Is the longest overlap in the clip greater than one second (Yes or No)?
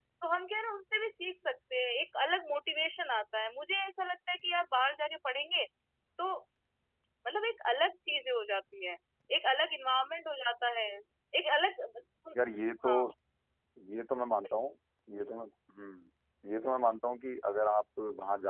No